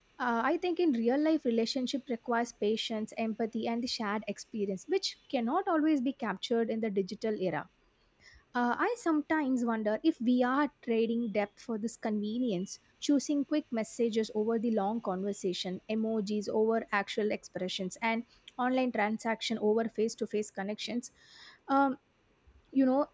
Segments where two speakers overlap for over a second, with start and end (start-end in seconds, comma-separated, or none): none